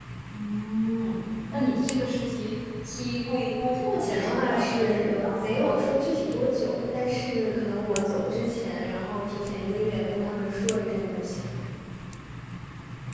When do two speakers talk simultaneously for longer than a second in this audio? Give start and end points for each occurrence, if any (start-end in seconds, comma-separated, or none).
3.8-5.7